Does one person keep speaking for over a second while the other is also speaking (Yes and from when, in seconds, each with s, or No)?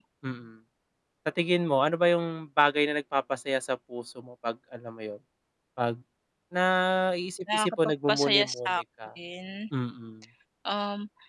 Yes, from 7.5 s